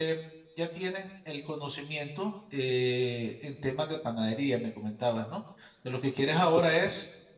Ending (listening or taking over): listening